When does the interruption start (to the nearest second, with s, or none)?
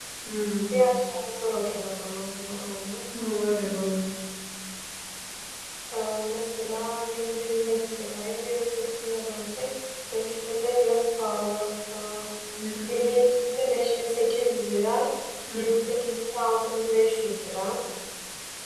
none